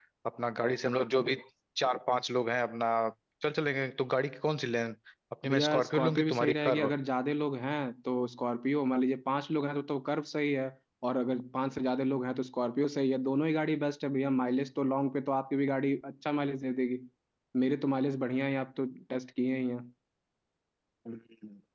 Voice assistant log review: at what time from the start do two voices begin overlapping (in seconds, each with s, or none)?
5.5 s